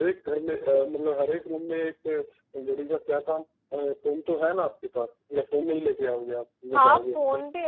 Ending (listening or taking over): taking over